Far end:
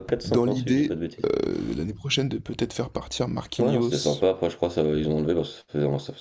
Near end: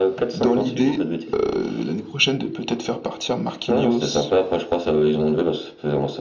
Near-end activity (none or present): none